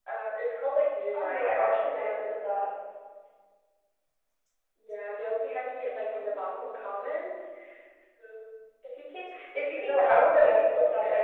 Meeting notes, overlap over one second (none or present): present